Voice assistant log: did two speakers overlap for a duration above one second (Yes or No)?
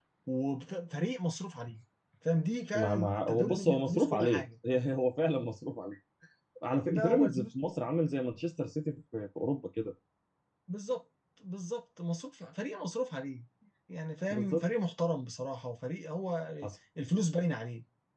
Yes